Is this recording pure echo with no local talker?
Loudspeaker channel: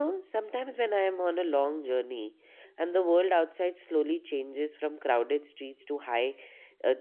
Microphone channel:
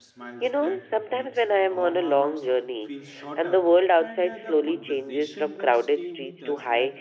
No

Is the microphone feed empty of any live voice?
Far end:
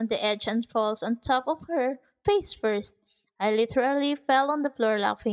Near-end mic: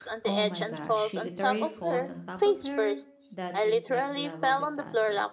No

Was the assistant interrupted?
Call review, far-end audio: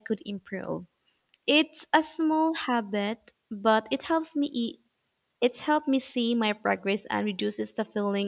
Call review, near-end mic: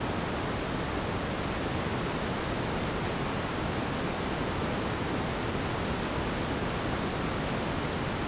No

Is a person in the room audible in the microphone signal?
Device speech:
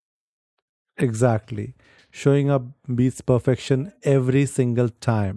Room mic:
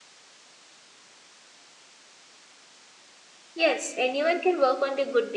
Yes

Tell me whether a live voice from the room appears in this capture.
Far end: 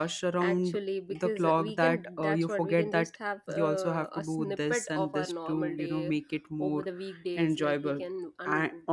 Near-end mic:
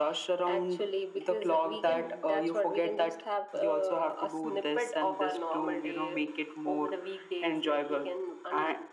No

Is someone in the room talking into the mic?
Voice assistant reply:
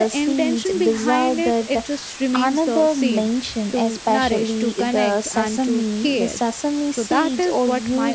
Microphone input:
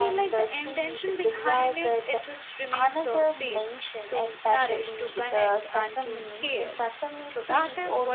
No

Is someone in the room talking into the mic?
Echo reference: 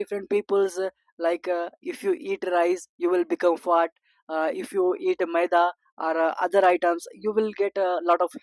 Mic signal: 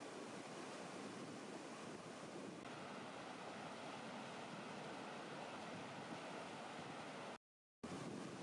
No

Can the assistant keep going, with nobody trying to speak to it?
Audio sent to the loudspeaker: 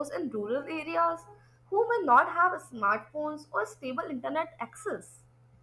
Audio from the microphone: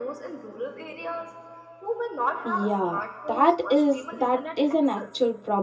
No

